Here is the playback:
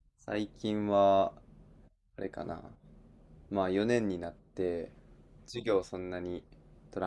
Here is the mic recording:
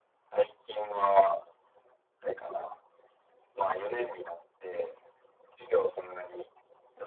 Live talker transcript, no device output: none

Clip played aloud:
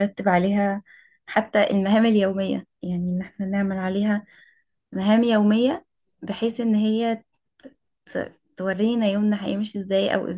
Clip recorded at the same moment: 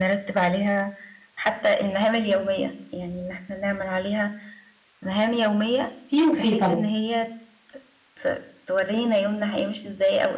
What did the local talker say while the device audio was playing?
في وفي طبعا

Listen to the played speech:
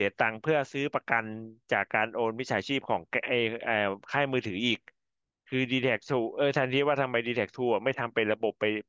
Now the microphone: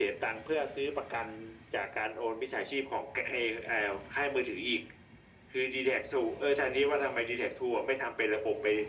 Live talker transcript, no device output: none

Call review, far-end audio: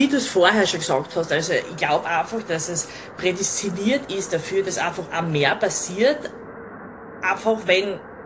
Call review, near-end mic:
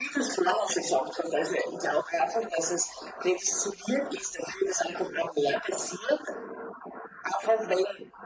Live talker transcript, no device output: none

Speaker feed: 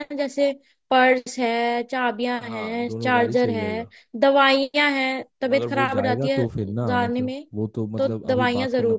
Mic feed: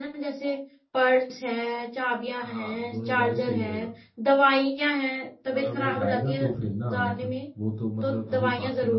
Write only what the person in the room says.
none

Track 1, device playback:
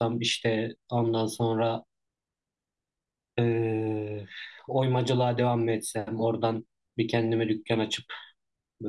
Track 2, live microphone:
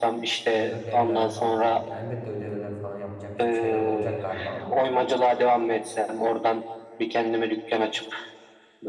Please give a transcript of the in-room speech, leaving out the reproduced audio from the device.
ve ödevler falan filan. Yani elbette ödevler falan yapılacak bir şeyler olacak galiba ama

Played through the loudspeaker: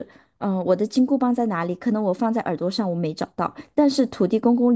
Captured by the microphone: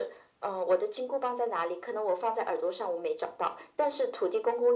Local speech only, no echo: none

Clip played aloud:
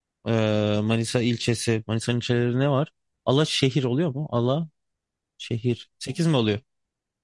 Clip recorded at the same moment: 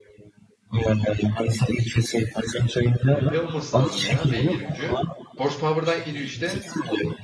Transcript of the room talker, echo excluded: HP olması lazım ya beygir gücü. Horsepower'dan geliyor işte.

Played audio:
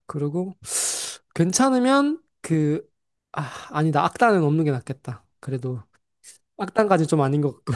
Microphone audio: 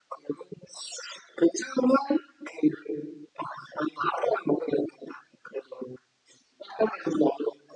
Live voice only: none

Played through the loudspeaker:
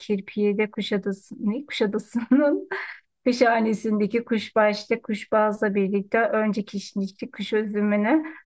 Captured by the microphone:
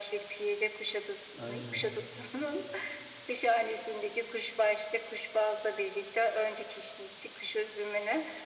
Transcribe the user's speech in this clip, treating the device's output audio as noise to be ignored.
Aynen.

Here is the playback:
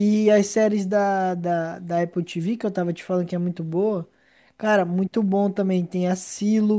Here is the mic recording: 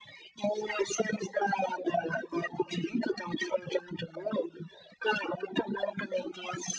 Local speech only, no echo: none

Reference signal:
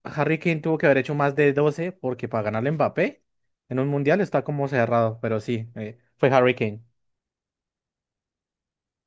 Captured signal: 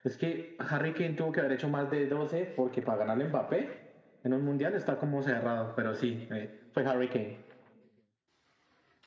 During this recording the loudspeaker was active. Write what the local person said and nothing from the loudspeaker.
none

